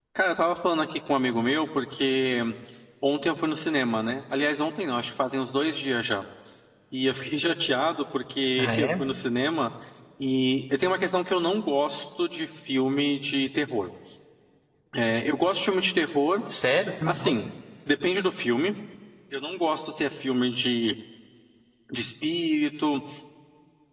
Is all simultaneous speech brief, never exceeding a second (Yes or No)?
Yes